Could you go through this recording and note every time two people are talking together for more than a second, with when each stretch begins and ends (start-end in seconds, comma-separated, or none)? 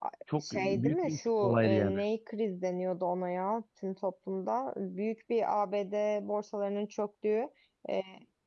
0.5-2.0